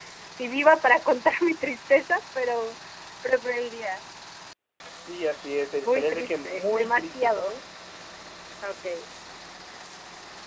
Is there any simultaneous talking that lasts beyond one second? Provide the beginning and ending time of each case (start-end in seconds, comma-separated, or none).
5.8-7.5